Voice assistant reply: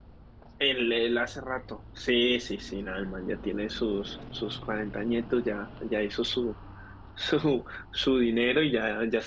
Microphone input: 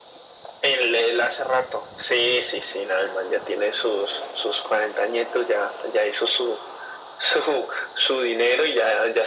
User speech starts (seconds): none

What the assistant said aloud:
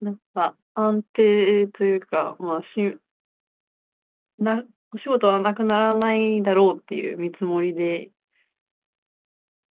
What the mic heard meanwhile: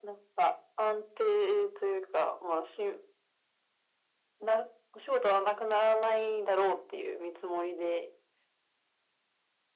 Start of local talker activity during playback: none

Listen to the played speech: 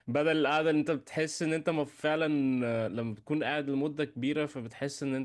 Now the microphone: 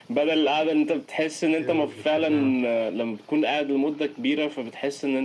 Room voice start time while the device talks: 1.6 s

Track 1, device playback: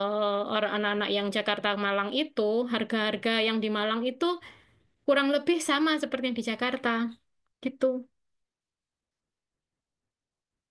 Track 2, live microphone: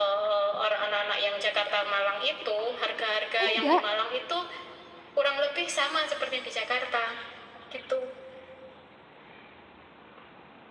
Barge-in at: 3.4 s

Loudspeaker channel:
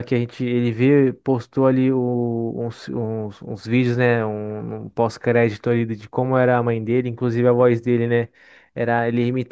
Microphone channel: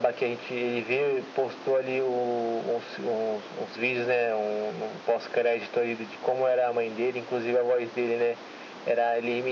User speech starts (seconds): none

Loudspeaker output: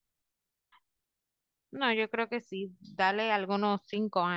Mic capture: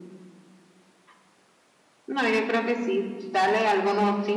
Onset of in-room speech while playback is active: none

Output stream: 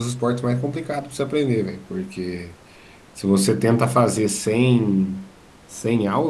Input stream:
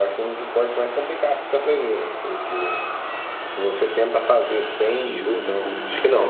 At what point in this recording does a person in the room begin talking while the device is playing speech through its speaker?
5.0 s

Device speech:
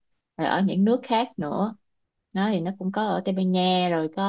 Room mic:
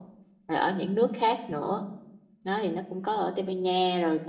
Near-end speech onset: none

